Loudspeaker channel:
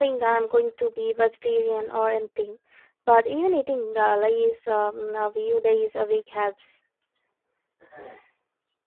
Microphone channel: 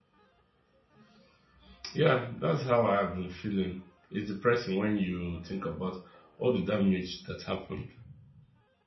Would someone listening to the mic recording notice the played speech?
No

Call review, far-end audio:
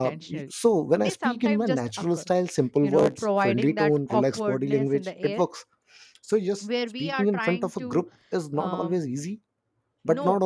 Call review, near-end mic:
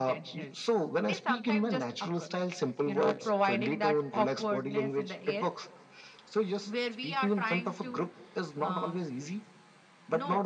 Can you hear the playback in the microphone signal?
Yes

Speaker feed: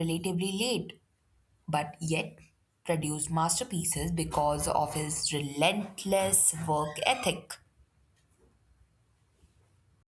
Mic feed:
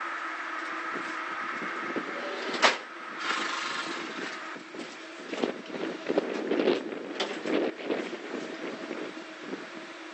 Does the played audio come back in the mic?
No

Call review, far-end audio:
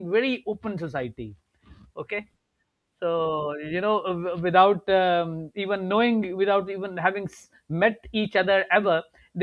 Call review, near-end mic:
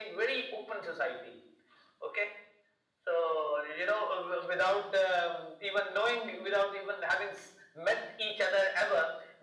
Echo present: Yes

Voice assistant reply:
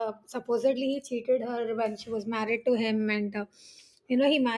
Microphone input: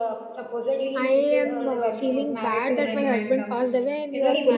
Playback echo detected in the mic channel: Yes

